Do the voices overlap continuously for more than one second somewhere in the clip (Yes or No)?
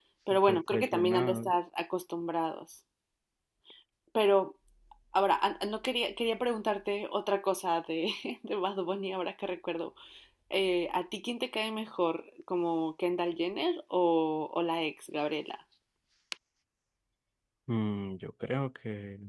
Yes